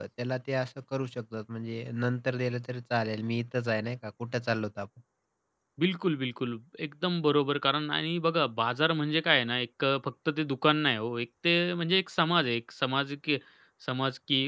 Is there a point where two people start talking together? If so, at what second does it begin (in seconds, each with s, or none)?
none